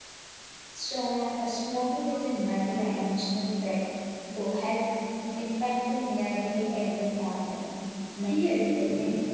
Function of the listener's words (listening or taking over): taking over